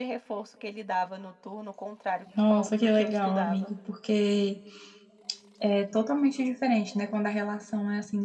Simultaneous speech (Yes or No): Yes